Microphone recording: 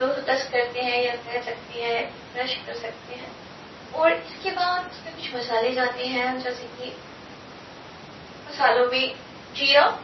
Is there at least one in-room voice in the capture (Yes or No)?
No